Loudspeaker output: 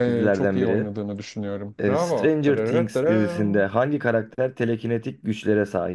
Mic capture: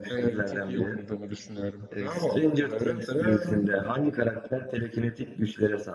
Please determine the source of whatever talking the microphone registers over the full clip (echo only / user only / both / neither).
echo only